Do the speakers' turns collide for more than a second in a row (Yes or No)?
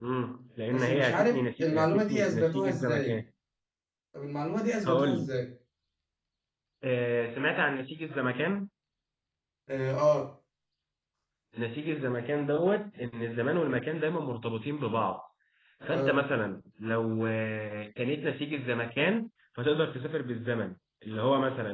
Yes